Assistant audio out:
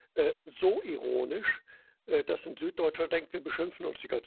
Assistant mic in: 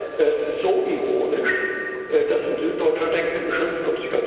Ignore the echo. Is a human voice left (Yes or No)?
No